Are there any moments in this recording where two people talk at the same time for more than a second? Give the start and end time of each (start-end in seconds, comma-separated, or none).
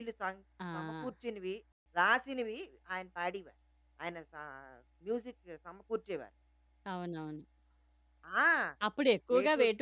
none